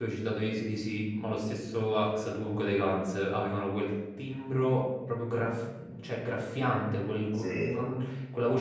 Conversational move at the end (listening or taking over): listening